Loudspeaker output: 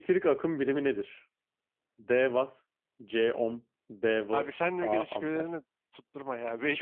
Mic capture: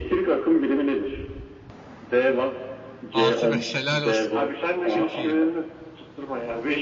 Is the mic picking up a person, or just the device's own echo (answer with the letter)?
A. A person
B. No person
A